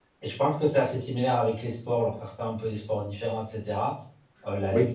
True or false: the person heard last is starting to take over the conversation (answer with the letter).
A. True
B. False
B